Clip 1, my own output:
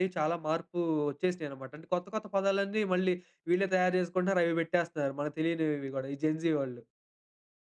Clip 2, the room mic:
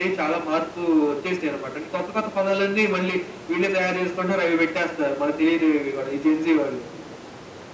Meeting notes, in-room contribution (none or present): none